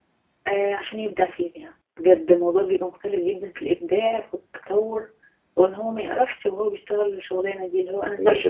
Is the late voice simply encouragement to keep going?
No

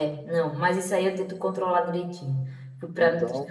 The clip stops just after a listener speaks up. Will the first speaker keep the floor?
No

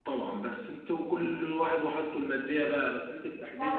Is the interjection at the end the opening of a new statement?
Yes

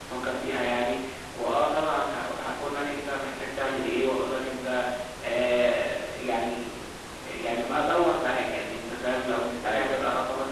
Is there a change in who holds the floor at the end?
No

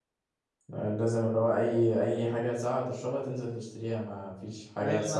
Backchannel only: No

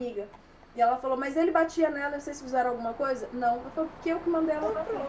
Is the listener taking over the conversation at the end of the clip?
No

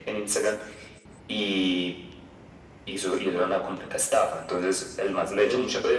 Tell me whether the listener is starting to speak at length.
No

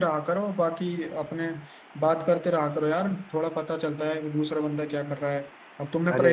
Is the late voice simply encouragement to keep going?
Yes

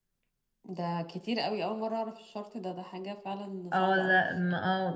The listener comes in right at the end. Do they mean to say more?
Yes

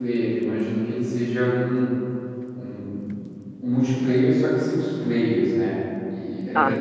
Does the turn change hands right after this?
No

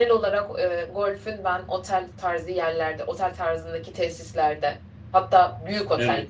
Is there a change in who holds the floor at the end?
No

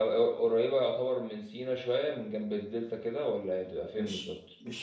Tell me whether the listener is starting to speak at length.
Yes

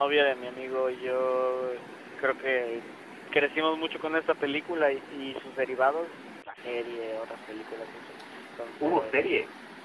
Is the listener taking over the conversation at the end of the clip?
No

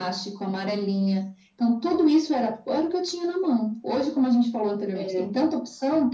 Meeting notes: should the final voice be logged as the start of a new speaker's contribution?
No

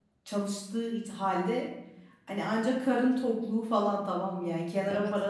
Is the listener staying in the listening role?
Yes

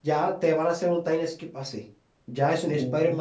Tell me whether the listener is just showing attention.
Yes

